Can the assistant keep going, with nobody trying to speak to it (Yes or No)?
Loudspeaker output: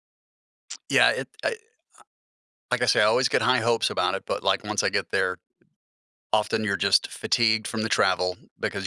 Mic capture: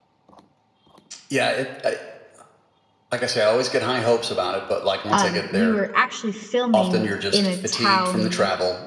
No